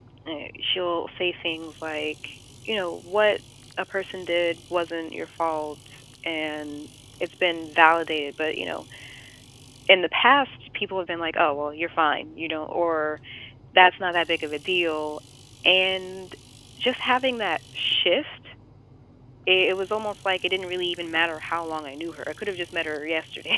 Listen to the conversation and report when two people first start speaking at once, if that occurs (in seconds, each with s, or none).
none